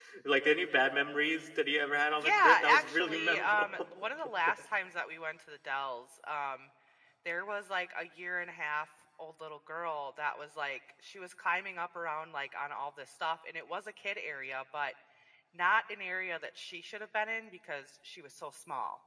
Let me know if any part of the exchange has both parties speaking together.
Yes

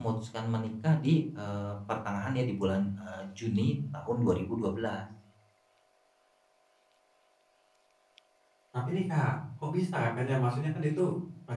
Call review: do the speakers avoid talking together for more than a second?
Yes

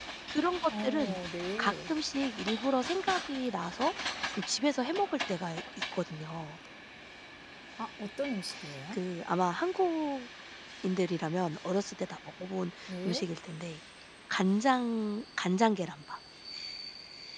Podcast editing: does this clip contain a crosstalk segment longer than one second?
No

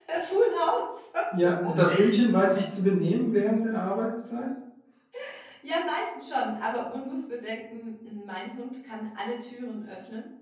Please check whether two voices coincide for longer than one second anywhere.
No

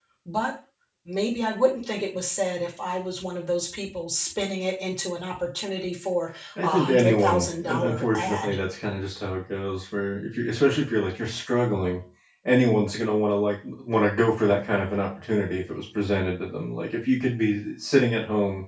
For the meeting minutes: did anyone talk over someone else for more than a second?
Yes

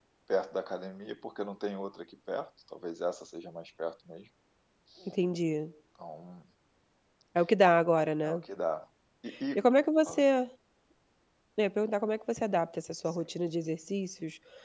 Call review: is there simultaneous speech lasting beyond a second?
No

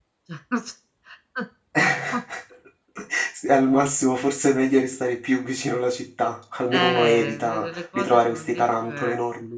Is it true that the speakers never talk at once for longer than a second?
No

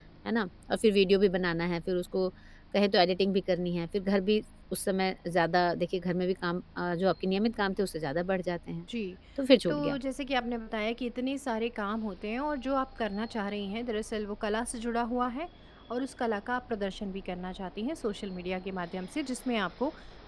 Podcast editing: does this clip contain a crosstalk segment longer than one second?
No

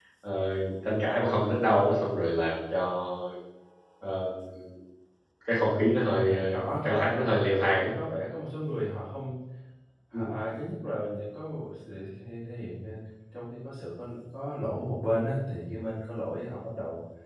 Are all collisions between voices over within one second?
No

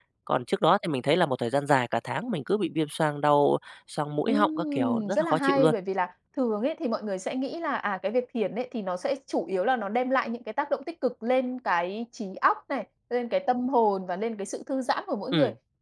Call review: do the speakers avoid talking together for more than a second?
No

